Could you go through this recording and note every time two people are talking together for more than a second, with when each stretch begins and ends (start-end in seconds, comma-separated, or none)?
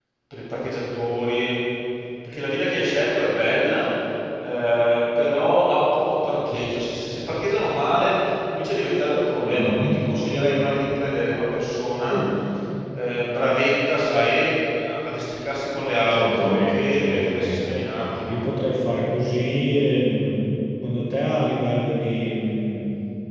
16.1-17.7